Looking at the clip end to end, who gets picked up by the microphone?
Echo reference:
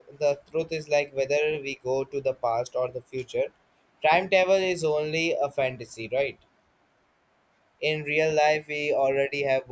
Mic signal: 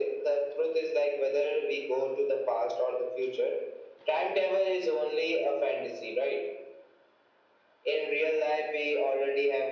echo only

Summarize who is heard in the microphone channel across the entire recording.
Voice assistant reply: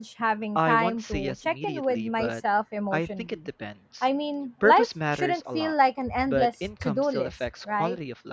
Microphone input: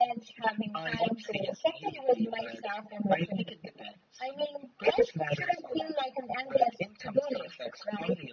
echo only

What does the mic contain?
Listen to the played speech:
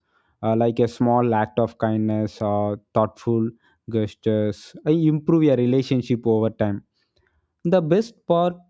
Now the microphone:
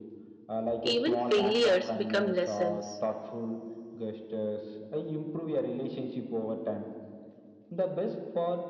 both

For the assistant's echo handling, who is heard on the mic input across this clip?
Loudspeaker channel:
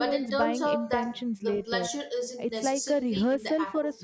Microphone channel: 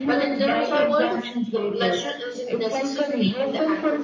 both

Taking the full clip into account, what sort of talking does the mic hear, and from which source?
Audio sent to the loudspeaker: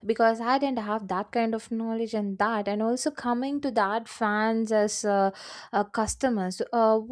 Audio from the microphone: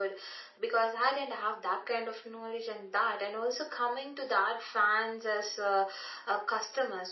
echo only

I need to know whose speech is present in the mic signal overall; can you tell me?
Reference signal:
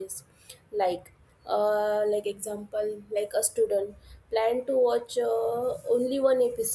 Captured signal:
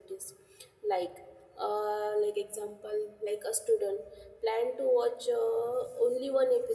echo only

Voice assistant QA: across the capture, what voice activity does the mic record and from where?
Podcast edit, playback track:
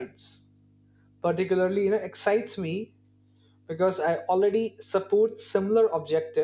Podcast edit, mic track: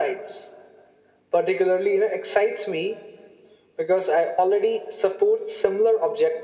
echo only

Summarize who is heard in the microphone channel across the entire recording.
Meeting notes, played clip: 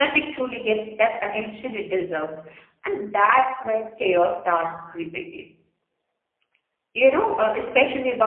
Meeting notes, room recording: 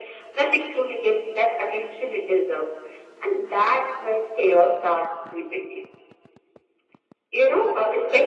echo only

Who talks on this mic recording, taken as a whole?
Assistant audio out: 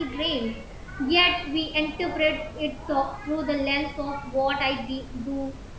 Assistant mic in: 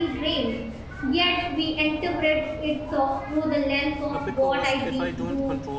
both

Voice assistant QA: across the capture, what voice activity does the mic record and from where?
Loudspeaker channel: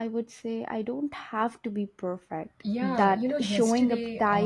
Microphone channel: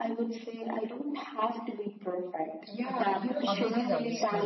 both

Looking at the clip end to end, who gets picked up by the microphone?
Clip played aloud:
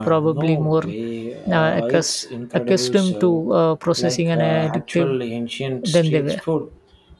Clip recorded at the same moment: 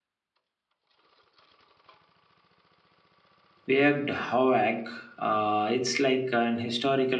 user only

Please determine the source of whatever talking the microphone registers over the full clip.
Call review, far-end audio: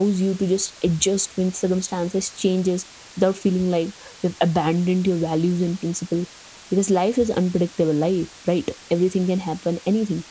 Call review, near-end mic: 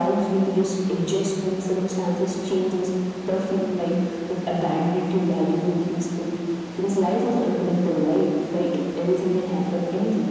echo only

